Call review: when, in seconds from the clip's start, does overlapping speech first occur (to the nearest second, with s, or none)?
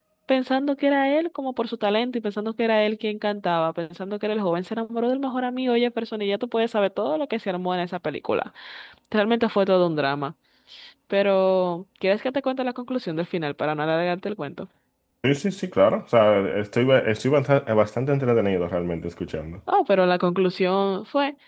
none